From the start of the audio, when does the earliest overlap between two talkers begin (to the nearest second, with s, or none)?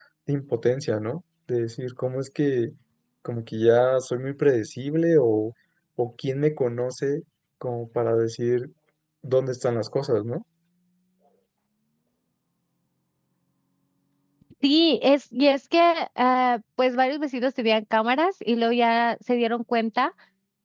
none